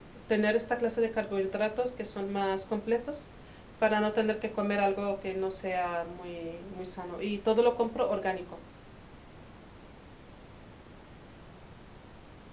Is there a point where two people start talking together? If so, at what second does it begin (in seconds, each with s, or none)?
none